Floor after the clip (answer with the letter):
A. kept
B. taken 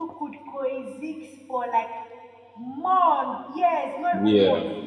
B